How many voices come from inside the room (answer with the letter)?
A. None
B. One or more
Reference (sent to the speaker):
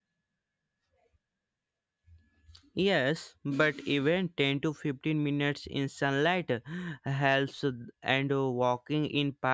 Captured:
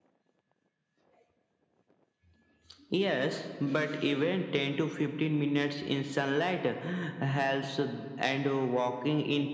A